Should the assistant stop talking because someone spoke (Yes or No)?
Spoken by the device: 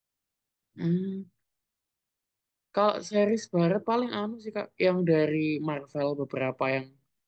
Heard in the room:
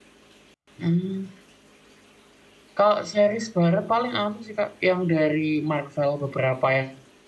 No